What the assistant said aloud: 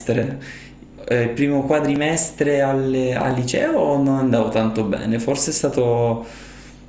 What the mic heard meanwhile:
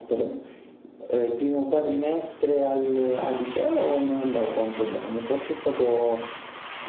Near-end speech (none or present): none